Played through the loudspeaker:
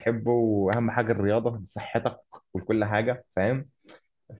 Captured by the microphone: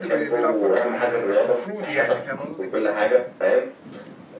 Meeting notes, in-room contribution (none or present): present